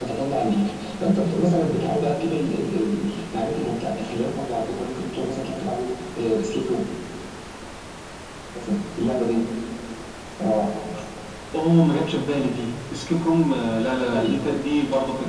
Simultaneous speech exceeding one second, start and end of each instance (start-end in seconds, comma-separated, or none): none